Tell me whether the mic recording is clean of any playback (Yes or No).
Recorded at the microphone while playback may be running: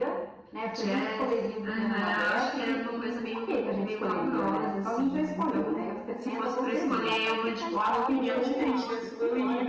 No